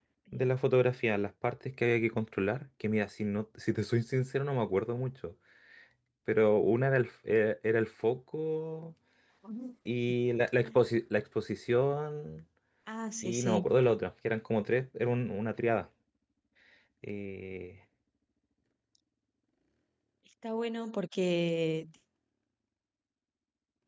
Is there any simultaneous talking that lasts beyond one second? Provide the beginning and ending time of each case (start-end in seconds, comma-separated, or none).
none